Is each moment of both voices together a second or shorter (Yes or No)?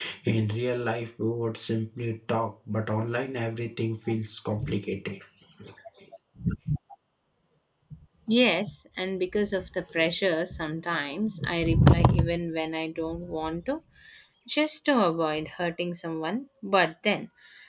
Yes